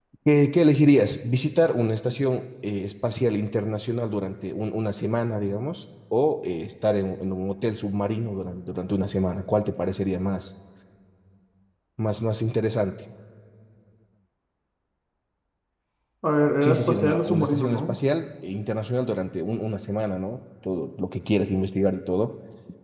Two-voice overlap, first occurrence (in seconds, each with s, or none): 16.6 s